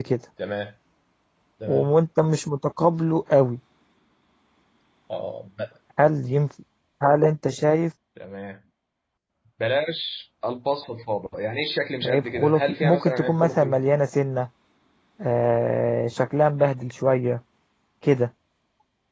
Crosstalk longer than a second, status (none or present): present